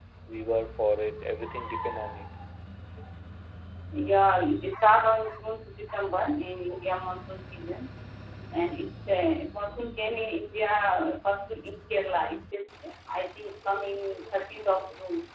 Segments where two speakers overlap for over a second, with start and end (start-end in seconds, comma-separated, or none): none